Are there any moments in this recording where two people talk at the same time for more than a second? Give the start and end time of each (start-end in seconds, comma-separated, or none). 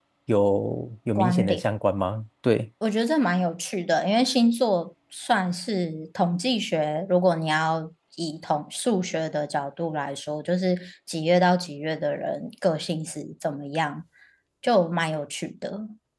none